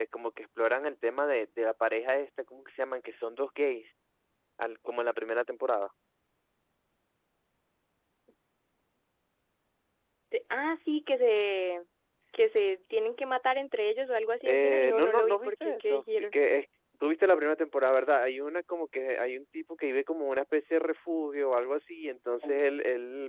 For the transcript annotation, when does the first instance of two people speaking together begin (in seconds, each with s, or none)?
14.4 s